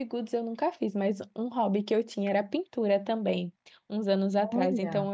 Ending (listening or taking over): listening